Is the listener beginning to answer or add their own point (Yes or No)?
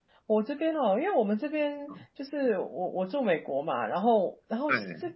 No